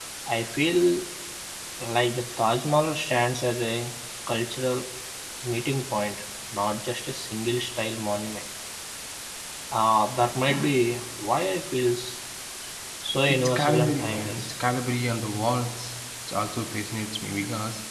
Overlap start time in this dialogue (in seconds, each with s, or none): 13.3 s